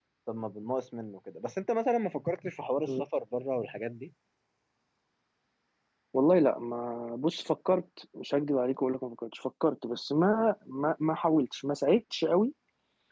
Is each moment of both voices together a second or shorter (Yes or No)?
Yes